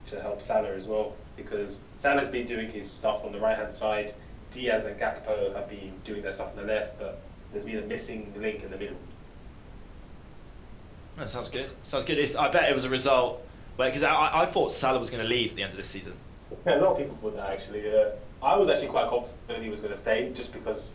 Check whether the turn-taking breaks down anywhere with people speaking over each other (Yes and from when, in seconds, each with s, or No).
No